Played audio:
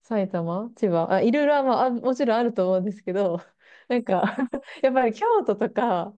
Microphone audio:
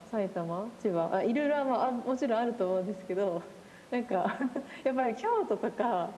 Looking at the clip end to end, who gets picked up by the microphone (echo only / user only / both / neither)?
echo only